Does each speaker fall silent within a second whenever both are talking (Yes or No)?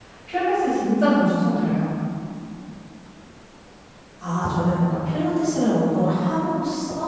Yes